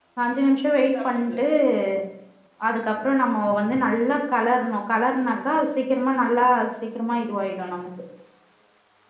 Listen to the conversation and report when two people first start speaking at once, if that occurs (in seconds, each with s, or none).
none